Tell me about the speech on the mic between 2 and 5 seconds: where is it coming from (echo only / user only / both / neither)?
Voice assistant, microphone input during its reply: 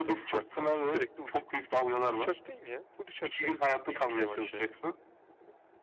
both